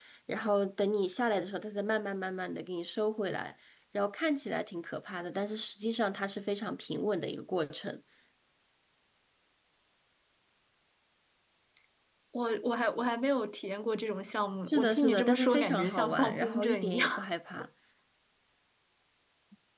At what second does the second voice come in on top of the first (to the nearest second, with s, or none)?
15 s